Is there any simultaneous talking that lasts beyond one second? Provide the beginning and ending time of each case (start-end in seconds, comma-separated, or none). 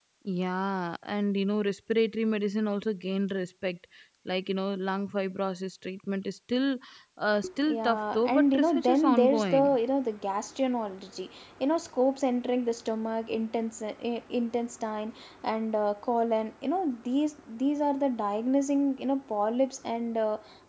7.7-9.8